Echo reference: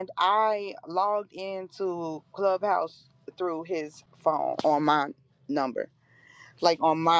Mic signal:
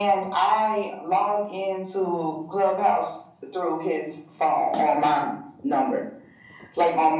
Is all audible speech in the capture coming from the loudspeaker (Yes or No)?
Yes